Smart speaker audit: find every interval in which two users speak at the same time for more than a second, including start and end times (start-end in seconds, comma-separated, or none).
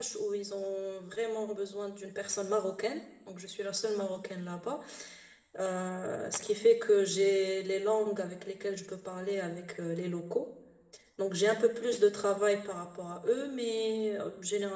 none